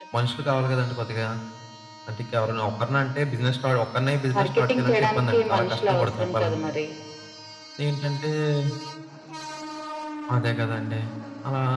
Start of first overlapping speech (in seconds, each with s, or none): 4.4 s